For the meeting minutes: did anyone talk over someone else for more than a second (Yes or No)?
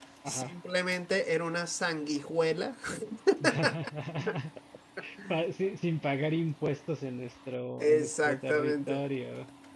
Yes